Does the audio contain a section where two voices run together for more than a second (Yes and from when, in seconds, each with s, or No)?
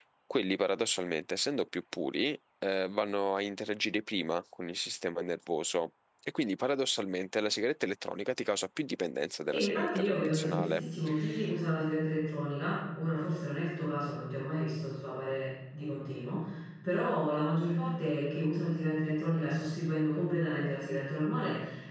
Yes, from 9.5 s